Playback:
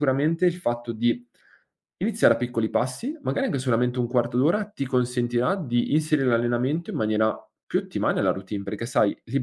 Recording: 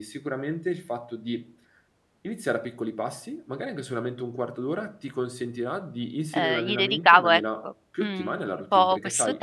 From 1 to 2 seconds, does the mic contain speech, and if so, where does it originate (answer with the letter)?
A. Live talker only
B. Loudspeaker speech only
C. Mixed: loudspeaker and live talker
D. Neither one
B